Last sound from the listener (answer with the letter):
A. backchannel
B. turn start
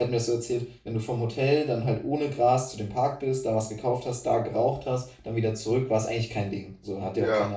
A